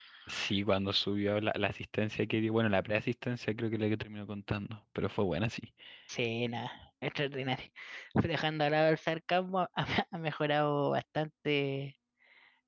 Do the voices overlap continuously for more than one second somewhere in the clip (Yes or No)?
No